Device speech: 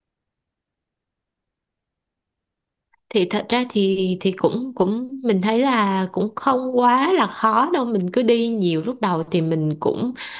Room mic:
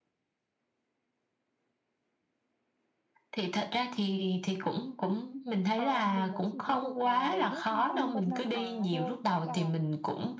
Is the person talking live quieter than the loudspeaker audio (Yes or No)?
Yes